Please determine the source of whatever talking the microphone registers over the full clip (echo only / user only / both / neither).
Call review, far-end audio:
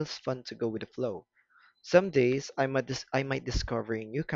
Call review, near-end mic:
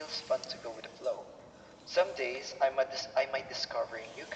echo only